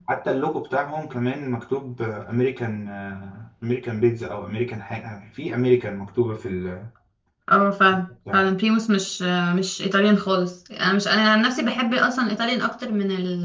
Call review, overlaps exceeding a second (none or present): none